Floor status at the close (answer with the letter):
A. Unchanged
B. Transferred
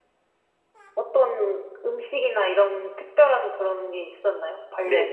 B